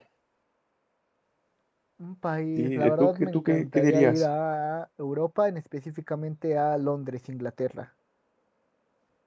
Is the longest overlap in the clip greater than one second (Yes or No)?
Yes